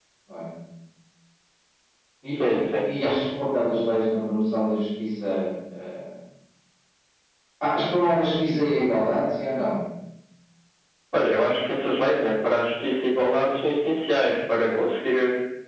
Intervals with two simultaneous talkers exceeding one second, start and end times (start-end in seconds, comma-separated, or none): none